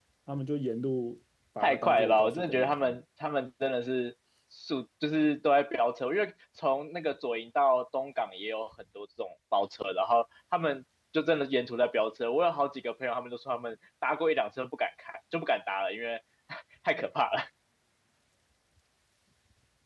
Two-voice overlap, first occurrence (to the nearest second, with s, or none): 2 s